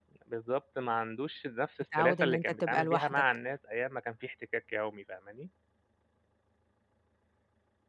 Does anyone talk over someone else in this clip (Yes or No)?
Yes